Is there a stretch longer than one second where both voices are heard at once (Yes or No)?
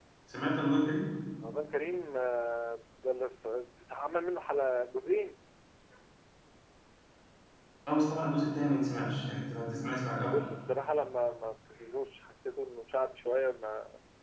No